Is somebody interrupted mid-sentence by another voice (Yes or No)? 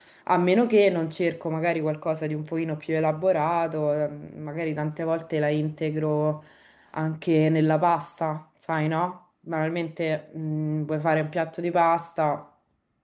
No